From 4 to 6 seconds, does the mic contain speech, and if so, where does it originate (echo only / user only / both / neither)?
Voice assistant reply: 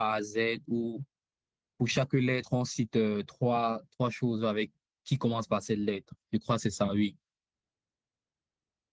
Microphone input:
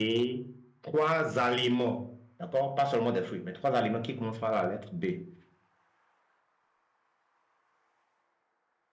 user only